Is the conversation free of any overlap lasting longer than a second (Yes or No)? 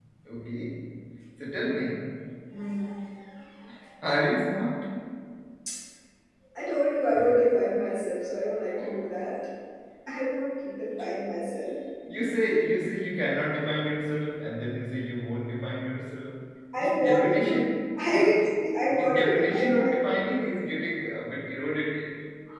No